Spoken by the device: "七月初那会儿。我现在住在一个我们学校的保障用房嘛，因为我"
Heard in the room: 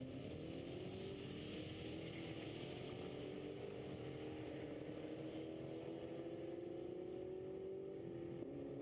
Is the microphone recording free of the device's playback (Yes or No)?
Yes